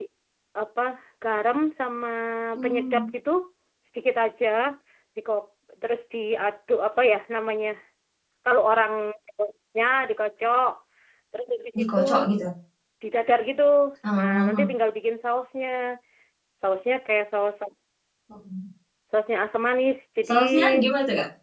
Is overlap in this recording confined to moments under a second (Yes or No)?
Yes